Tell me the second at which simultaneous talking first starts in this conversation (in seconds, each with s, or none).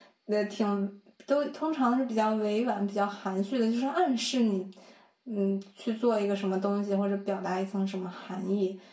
none